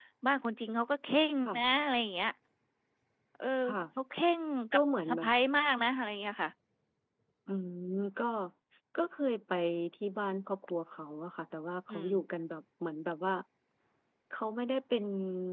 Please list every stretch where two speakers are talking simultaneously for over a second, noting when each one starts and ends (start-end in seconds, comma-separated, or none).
none